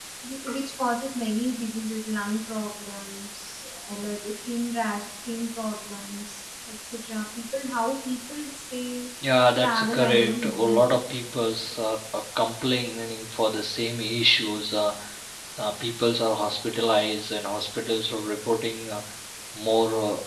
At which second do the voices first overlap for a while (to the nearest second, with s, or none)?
10 s